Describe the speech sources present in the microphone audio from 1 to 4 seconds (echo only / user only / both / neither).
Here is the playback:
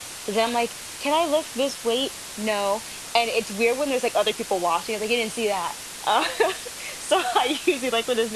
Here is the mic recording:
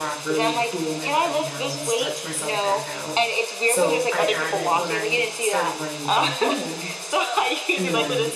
both